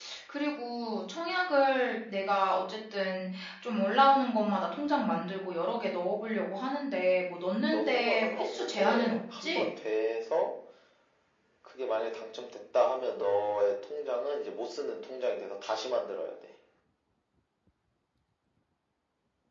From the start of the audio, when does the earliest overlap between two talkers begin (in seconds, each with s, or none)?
7.7 s